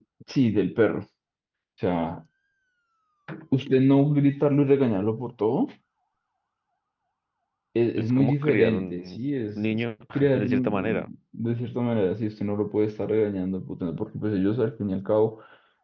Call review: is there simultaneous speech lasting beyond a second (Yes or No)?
Yes